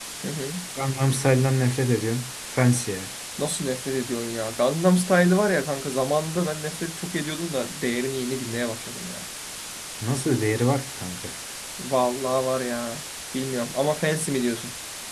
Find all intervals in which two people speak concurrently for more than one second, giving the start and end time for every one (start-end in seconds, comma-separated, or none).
none